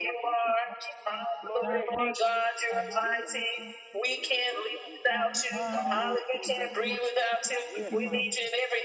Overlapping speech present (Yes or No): Yes